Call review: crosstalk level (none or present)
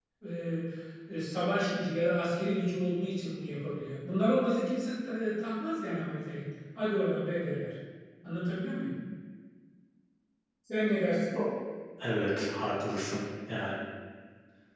none